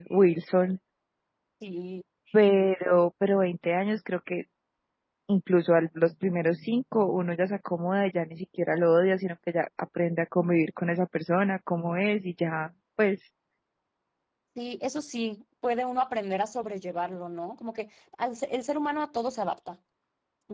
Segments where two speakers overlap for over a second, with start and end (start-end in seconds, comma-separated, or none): none